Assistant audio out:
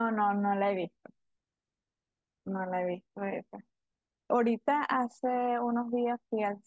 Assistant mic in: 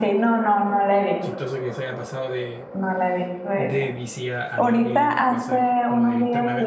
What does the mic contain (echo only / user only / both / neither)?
both